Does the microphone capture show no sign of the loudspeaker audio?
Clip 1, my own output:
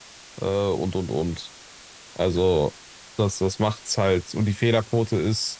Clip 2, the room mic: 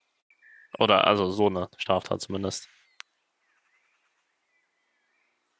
Yes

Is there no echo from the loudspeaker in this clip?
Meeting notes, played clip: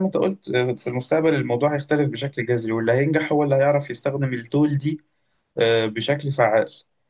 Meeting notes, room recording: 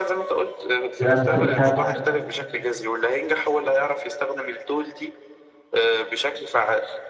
No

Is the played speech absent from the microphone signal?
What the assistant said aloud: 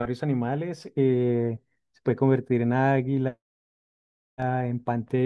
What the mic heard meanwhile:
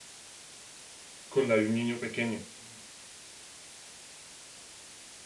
Yes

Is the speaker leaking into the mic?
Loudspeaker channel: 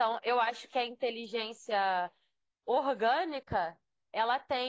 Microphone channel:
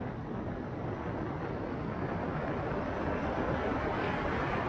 No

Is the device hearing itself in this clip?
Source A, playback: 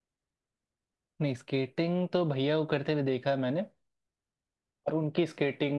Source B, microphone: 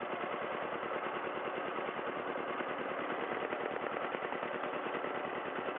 No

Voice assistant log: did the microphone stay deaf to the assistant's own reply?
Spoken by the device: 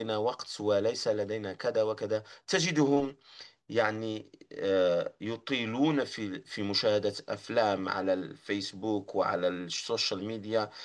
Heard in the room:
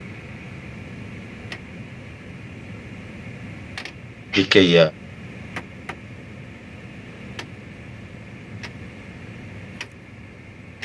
Yes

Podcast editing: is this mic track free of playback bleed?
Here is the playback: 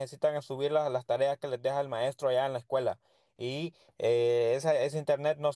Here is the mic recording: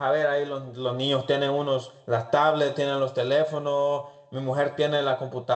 Yes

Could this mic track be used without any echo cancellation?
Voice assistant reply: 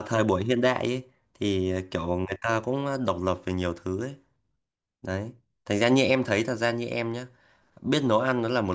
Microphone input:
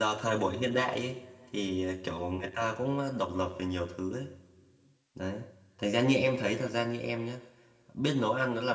No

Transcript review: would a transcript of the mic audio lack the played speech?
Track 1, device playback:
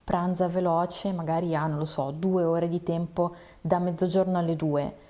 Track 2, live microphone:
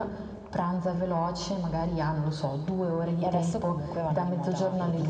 No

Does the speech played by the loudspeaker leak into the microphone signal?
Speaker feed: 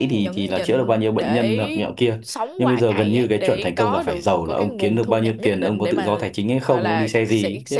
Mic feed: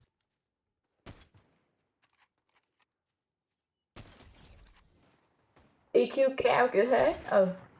No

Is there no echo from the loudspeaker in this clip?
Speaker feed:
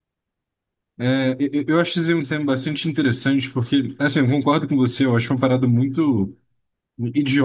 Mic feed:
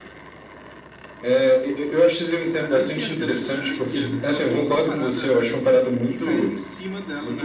No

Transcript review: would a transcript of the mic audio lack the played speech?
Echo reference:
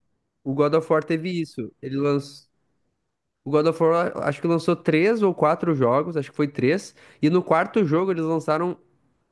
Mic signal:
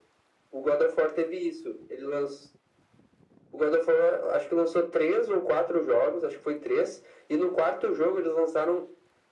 No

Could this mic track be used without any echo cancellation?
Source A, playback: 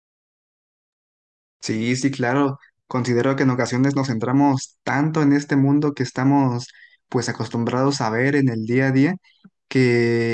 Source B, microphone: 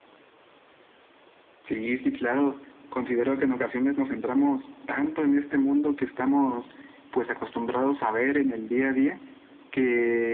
No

